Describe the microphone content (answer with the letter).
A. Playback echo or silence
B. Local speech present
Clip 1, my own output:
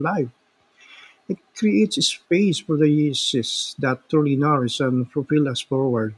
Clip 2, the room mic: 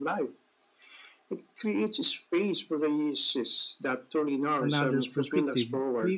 B